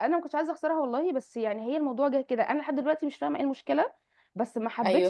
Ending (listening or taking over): listening